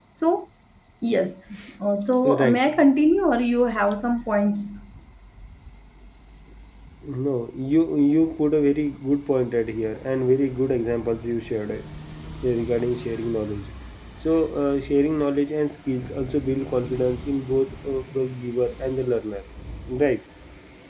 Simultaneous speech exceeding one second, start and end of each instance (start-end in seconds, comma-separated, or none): none